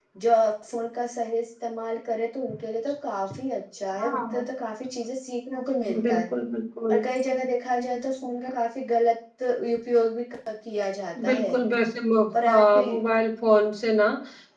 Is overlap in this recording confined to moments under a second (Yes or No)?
Yes